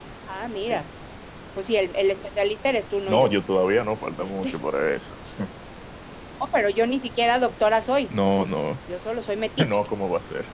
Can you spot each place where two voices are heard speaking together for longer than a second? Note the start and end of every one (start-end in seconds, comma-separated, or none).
none